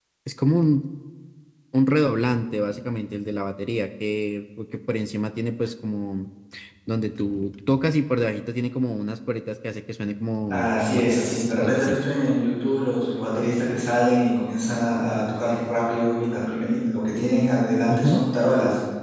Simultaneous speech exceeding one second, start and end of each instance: 10.5-12.0

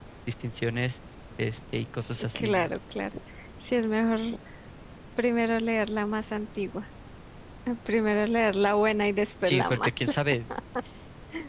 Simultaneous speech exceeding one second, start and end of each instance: none

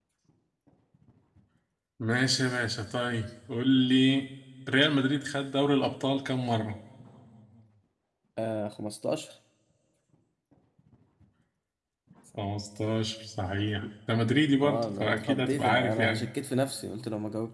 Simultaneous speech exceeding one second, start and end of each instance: 14.6-16.3

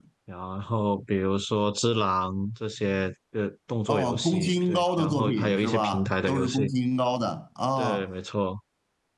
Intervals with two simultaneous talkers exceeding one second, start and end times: 3.9-6.7

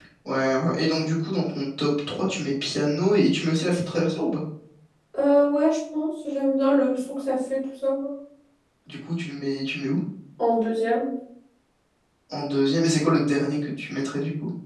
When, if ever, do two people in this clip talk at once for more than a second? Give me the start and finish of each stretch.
none

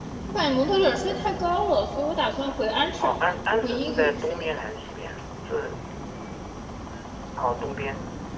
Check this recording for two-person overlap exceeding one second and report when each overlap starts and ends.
3.0-4.5

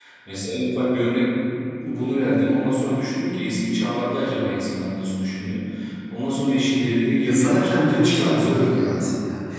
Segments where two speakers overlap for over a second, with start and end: 7.2-8.8

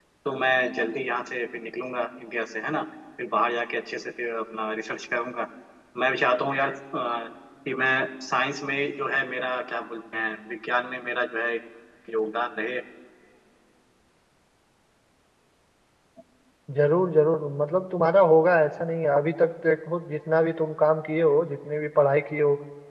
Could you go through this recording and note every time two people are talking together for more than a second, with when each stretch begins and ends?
none

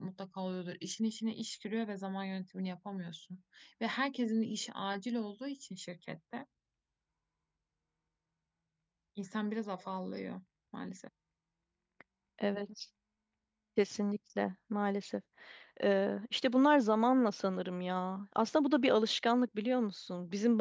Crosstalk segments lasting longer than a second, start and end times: none

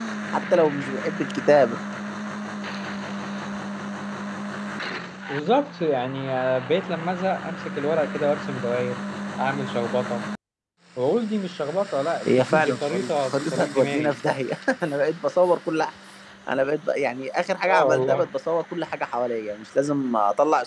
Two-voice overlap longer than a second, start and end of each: 12.3-14.2

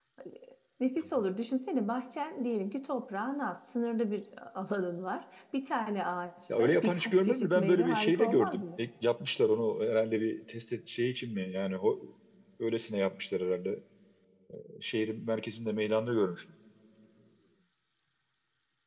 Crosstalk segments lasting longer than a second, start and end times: 6.6-8.8

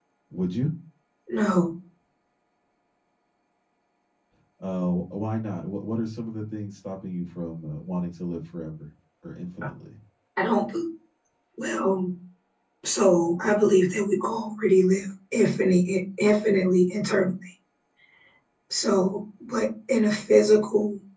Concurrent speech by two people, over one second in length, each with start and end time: none

